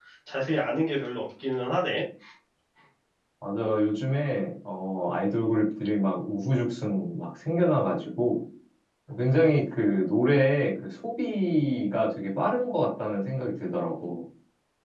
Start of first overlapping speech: none

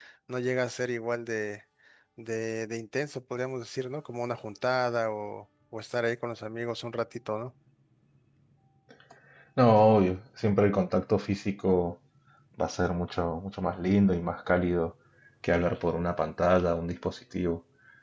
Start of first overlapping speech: none

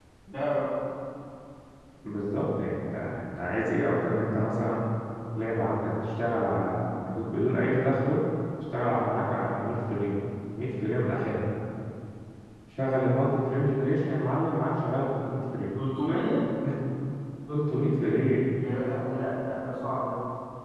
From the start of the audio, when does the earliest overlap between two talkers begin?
none

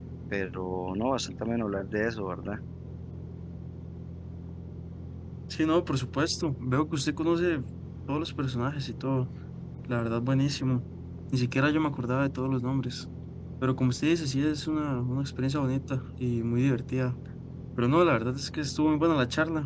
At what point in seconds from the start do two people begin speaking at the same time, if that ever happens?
none

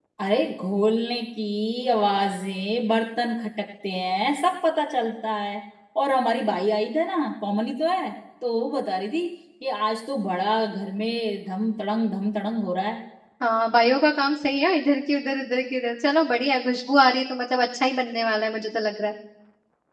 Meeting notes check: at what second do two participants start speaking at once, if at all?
none

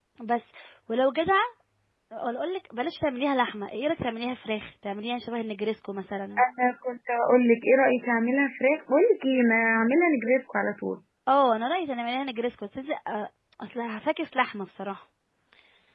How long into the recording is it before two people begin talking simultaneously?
none

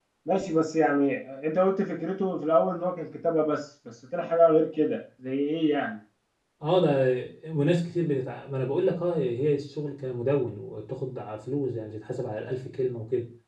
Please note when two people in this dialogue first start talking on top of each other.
none

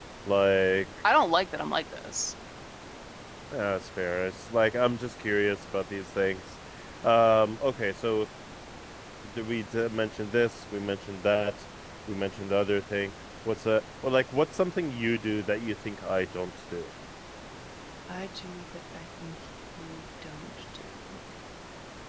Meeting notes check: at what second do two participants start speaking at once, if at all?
none

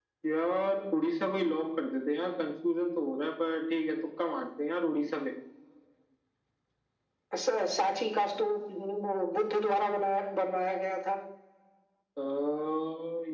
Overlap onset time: none

